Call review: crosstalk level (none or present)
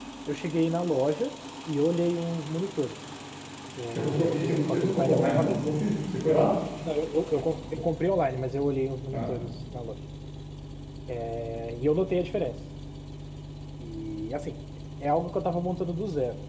present